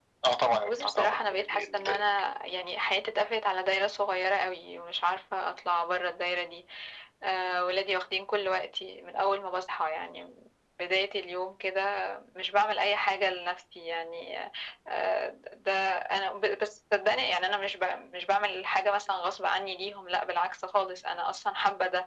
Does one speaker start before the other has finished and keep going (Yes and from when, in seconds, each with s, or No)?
Yes, from 0.6 s